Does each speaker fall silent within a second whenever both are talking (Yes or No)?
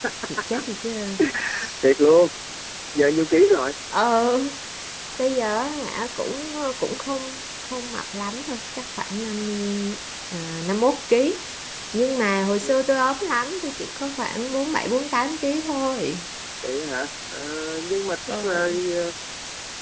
Yes